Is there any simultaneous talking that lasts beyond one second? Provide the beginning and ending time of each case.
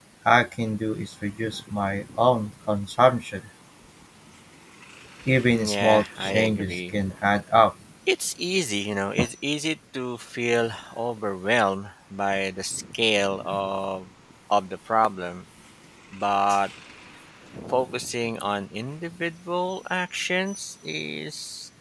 5.7-6.9

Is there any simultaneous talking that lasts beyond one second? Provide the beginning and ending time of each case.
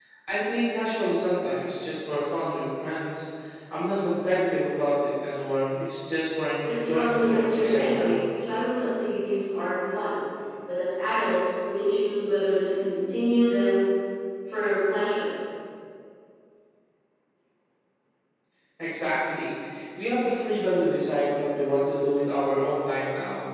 6.6-8.2

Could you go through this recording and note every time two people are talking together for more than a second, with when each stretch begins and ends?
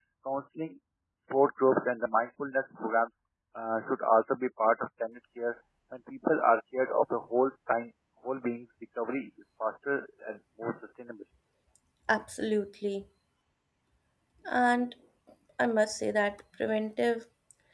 none

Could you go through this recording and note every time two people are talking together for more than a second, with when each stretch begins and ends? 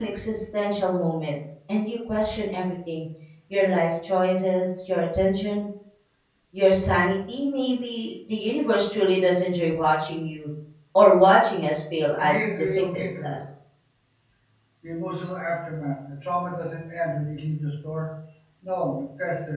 12.2-13.4

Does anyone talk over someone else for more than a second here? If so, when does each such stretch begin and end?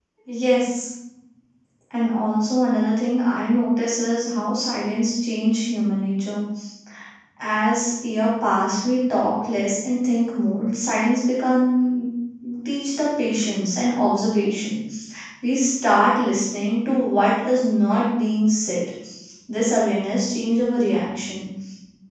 none

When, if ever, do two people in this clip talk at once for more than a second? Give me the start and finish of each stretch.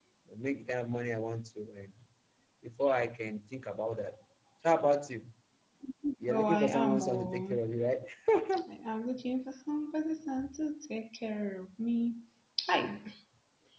6.3-7.6

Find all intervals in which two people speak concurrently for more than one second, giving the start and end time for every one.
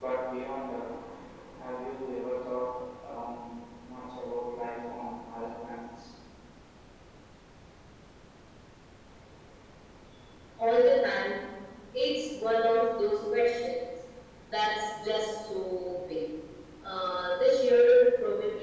none

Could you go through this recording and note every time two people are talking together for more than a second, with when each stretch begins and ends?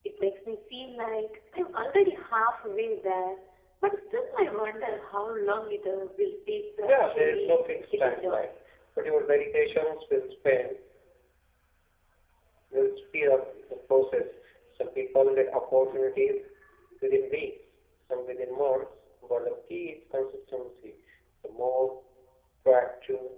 6.8-8.5

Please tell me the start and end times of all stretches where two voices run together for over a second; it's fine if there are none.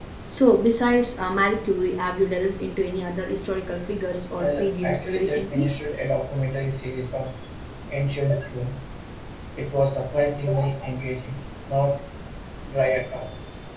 4.4-5.7

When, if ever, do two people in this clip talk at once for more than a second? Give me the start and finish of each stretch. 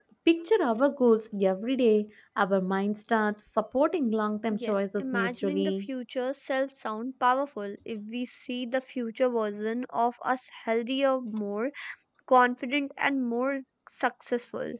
4.5-5.9

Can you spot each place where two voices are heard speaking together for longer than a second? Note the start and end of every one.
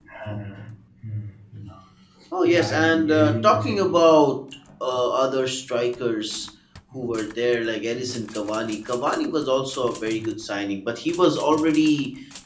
2.4-4.0

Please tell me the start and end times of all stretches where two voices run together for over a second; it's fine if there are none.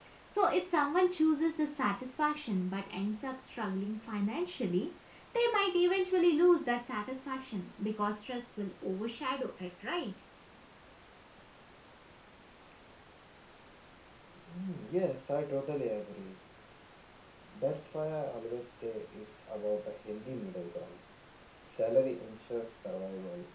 none

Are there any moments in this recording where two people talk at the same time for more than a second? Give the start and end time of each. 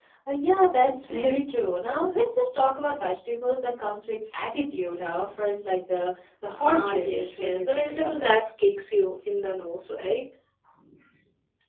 6.6-8.3

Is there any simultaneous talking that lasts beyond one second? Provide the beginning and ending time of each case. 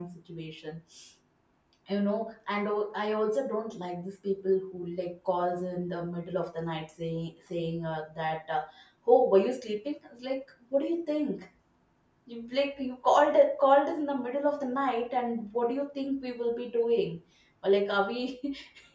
none

